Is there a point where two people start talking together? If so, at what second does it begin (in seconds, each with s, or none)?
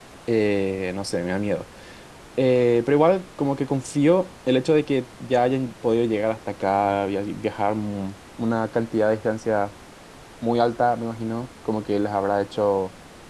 none